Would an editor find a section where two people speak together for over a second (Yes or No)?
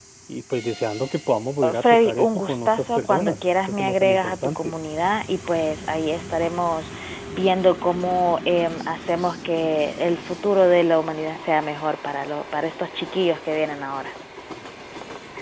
Yes